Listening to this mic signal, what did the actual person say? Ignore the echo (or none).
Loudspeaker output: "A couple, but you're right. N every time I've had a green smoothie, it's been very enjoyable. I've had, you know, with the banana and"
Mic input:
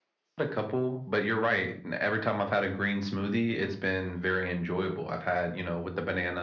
none